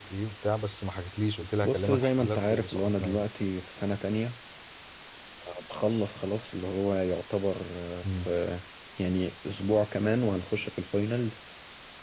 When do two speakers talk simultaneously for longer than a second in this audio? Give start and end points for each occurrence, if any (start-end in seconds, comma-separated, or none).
1.6-3.2